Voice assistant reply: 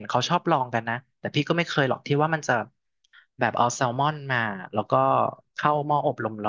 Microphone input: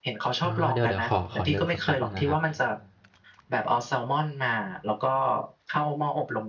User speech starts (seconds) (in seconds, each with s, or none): 0.4 s